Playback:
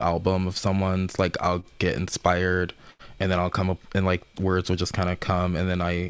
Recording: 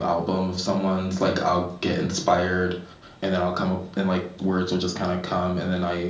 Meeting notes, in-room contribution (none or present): none